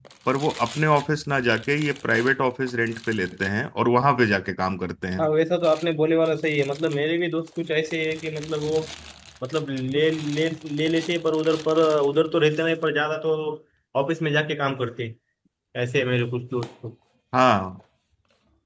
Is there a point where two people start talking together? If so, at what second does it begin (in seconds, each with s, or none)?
none